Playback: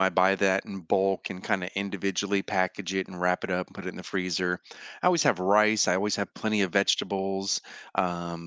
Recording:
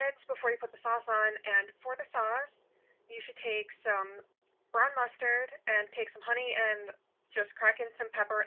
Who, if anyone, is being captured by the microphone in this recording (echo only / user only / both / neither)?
user only